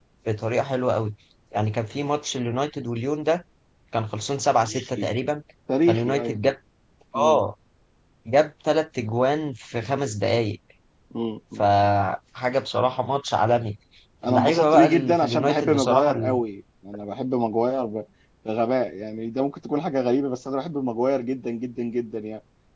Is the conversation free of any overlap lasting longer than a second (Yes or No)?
No